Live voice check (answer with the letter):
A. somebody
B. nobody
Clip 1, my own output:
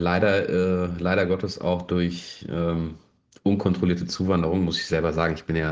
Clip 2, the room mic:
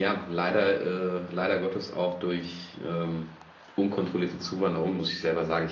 B